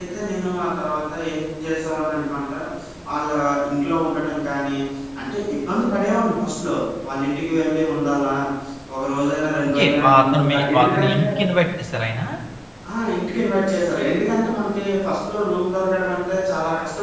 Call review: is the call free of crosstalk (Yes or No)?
No